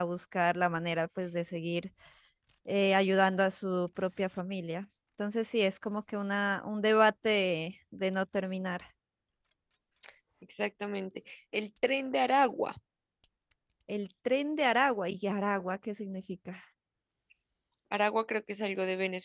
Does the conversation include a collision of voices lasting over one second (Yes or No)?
No